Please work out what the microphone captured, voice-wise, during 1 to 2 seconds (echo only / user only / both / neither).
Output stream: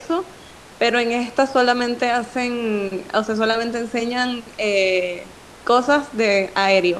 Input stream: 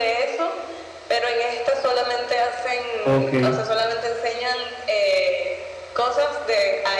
echo only